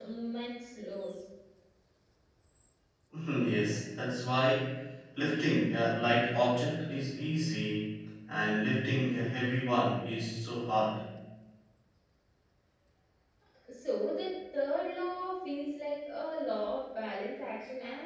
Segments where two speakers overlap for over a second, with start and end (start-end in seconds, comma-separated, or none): none